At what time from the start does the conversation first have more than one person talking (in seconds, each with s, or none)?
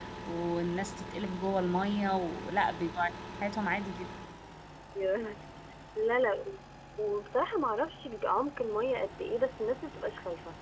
none